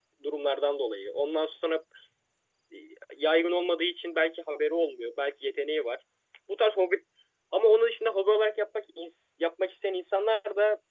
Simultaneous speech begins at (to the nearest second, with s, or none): none